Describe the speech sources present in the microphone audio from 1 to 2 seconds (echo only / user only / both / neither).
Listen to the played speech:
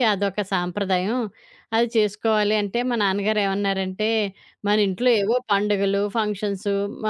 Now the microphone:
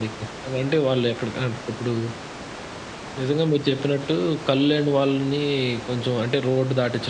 user only